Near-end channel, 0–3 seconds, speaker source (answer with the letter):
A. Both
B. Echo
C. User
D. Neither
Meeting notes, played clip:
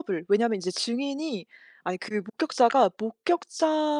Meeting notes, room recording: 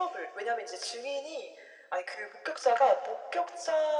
B